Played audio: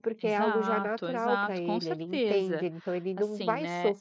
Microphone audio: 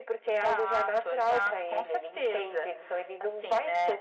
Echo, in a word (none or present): present